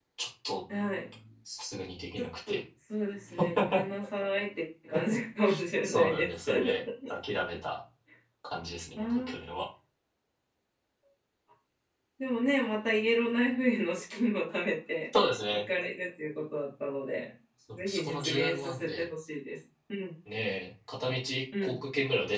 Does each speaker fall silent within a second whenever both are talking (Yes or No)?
No